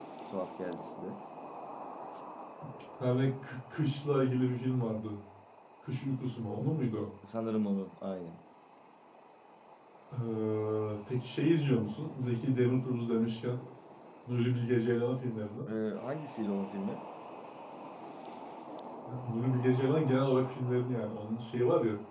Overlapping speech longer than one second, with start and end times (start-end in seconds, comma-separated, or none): none